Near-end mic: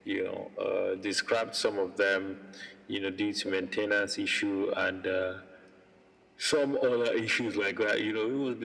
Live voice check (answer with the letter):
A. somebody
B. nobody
B